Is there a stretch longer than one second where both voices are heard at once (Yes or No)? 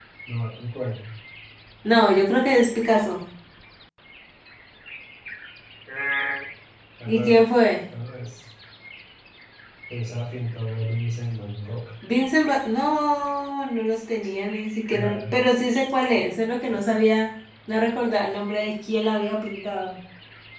No